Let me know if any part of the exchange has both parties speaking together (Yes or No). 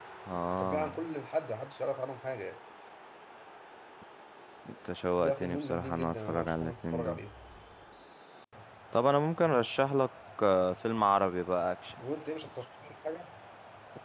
Yes